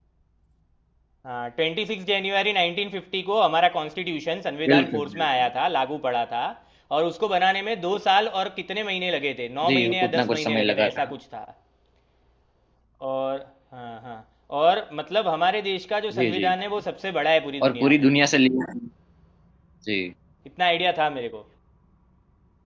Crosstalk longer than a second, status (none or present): present